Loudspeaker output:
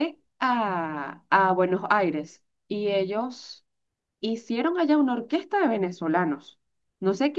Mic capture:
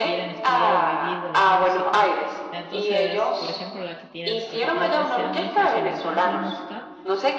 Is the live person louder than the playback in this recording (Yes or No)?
No